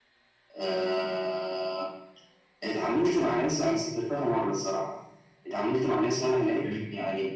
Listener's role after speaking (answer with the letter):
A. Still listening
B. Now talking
A